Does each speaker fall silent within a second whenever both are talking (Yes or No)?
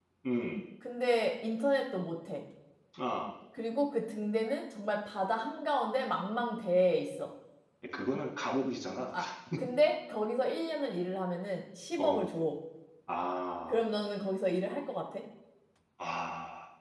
Yes